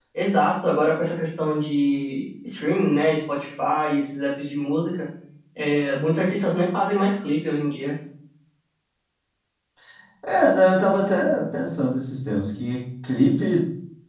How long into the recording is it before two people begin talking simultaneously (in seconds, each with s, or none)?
none